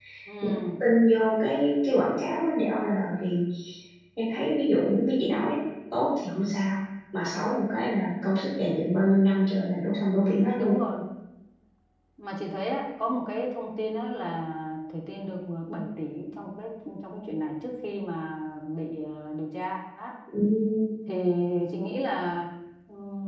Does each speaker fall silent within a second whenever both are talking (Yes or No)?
Yes